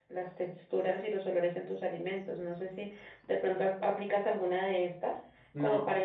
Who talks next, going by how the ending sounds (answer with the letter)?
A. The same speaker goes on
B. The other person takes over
A